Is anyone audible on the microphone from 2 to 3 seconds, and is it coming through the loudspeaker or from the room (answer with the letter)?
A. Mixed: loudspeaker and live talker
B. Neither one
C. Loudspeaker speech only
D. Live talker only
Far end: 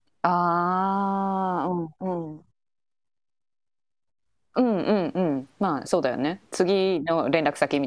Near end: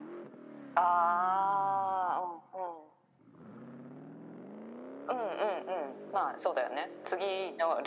C